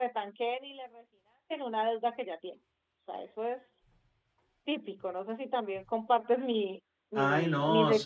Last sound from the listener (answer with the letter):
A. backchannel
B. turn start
B